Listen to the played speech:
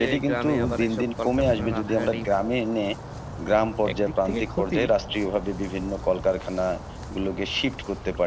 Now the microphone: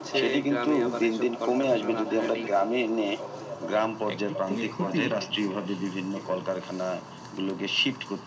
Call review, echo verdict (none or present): present